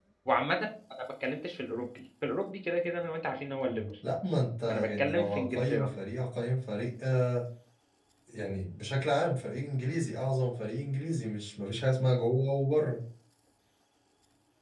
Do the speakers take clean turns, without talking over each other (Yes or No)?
No